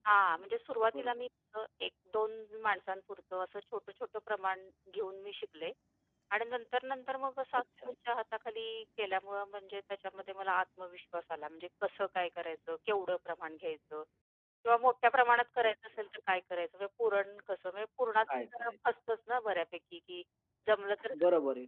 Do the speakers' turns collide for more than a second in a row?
No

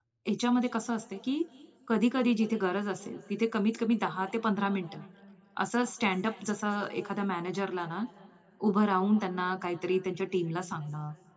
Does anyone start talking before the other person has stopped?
No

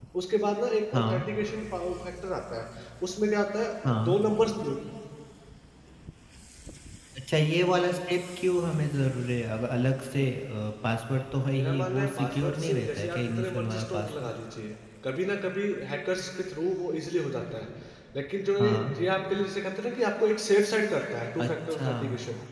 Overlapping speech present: Yes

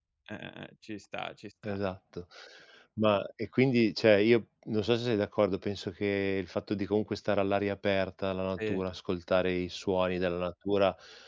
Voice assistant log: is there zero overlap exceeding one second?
Yes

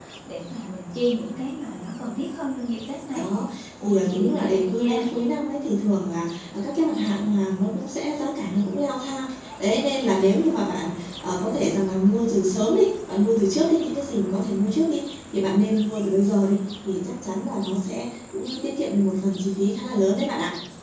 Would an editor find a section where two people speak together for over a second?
Yes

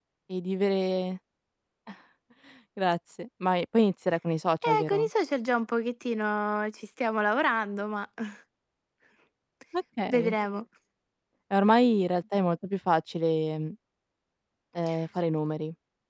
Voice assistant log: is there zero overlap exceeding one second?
Yes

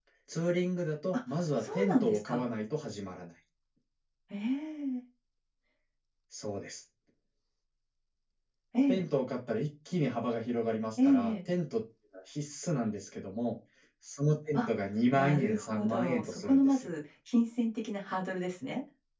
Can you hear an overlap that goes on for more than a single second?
Yes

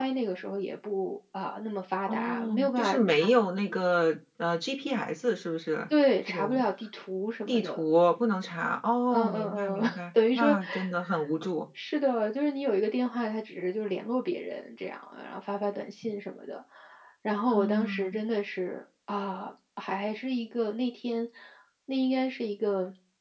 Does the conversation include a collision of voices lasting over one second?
Yes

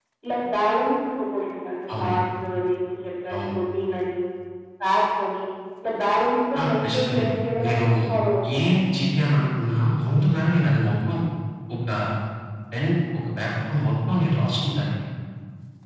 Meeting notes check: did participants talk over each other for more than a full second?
Yes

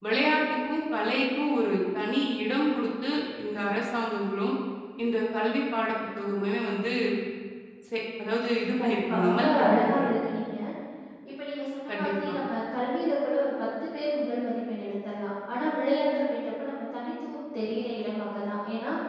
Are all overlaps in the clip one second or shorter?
No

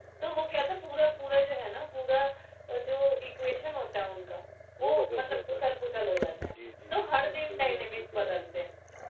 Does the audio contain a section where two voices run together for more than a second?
Yes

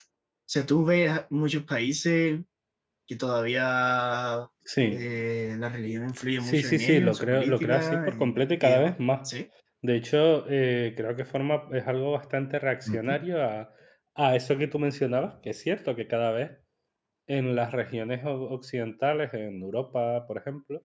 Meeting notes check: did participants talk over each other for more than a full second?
Yes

